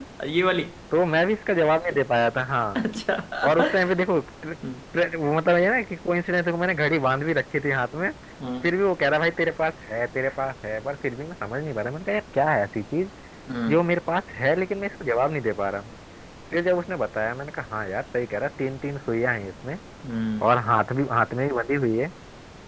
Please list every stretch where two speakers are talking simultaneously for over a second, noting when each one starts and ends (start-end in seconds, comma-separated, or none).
none